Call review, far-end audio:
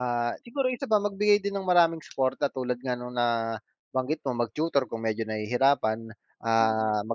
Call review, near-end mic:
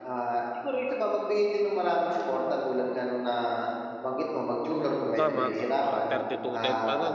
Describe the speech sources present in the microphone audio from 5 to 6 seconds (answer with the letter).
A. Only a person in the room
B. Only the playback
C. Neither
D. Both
D